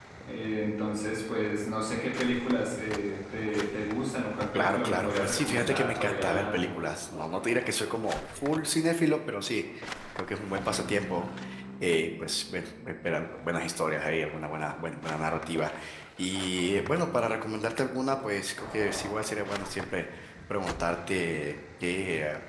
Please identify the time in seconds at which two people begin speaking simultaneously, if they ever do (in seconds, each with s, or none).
4.5 s